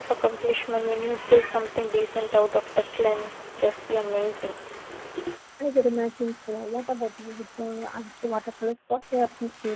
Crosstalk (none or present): none